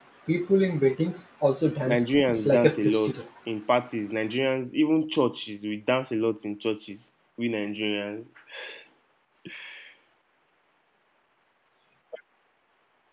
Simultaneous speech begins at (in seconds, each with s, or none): 1.9 s